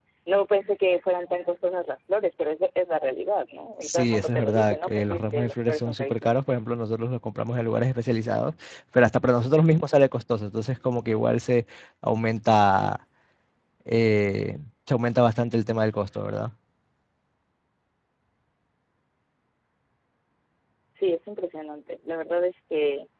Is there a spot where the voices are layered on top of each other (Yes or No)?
Yes